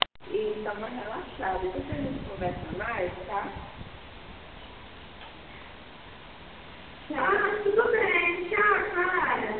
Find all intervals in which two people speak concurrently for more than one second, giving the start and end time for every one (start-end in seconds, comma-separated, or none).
none